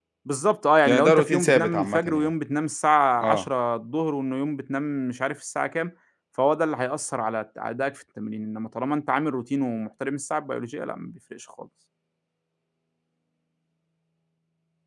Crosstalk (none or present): present